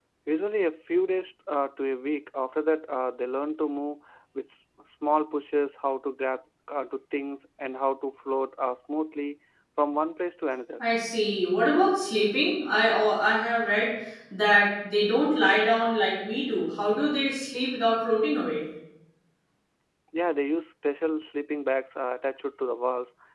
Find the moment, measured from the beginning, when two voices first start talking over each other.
none

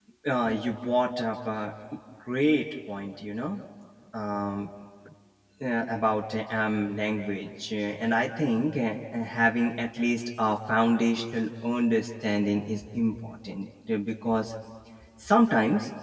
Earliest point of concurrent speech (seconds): none

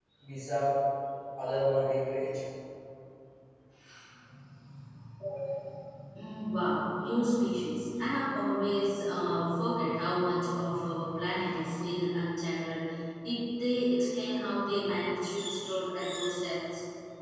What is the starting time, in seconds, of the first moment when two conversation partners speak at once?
none

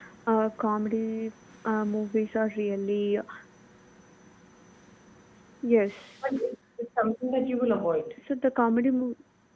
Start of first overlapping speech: none

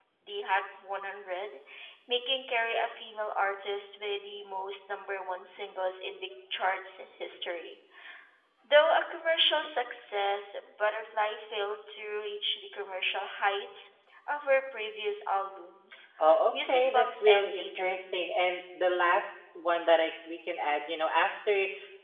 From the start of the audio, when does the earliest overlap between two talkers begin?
17 s

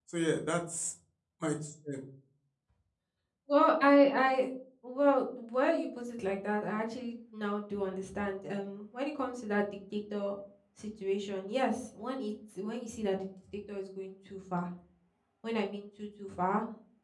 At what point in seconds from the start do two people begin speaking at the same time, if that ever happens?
none

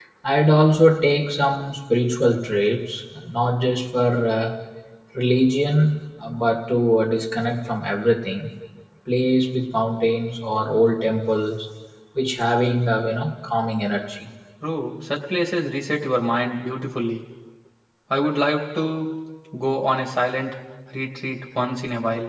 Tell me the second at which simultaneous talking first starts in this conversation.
none

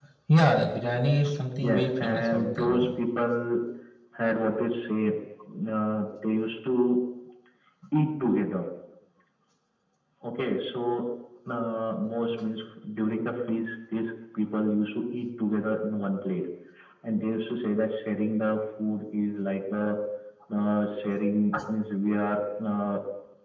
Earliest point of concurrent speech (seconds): 2 s

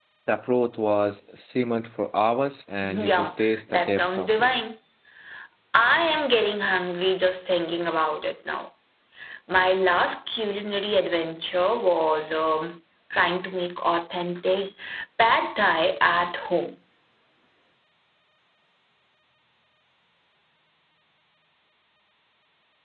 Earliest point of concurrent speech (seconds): 3 s

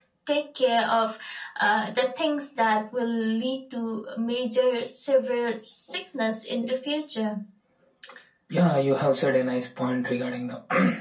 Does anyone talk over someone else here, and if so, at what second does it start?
none

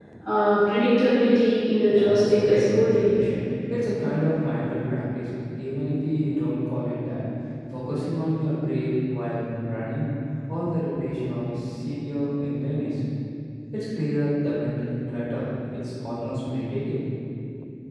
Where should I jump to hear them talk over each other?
2 s

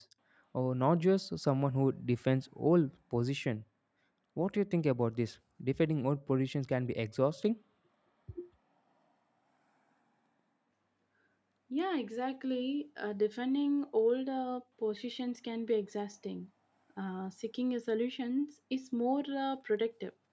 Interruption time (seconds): none

